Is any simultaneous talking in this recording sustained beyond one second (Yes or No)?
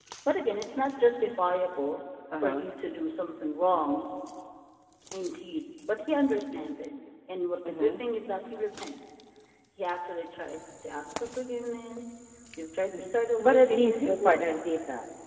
Yes